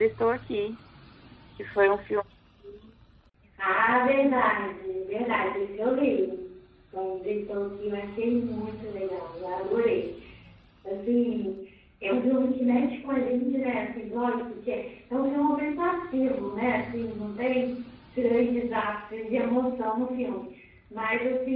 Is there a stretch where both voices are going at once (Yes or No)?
No